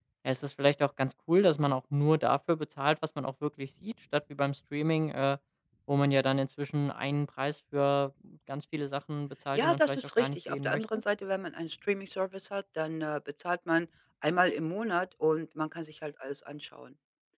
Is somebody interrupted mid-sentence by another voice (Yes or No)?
Yes